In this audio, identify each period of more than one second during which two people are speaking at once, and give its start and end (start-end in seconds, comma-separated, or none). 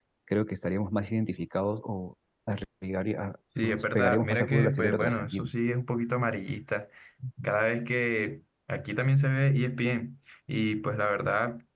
3.6-5.5